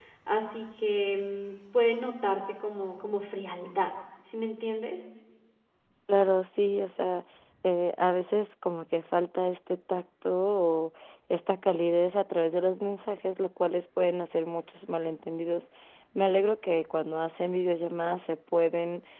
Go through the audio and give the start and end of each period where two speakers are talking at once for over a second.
none

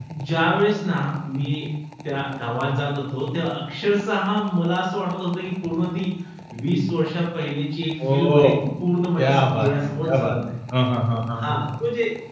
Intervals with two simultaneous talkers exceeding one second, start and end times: 9.2-10.4

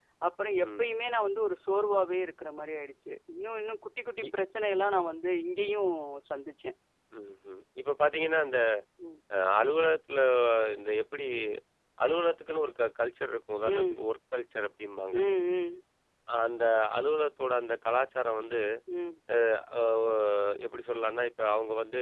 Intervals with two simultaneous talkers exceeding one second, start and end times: none

